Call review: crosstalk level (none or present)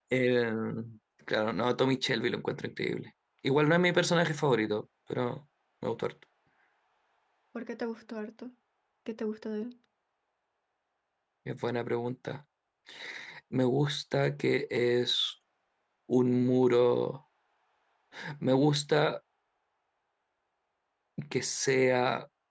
none